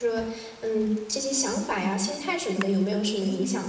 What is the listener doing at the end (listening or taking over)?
taking over